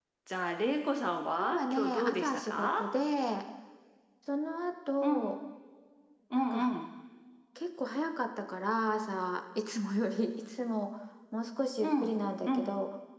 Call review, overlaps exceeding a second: present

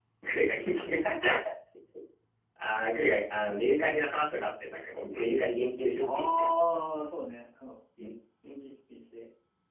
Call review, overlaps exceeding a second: none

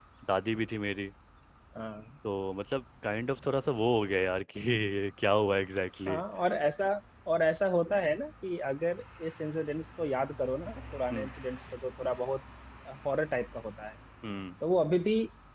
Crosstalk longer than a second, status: none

